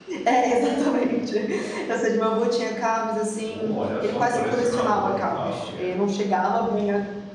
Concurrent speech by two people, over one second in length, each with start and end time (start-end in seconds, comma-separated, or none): 3.5-5.9